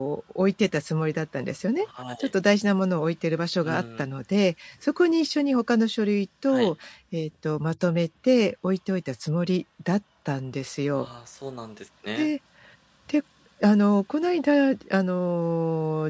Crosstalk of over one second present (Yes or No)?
No